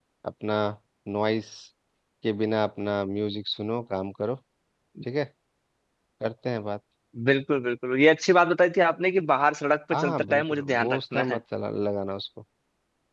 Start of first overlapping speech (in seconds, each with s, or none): 9.9 s